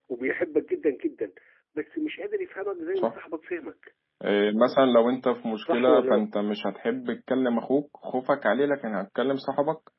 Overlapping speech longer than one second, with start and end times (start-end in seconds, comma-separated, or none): none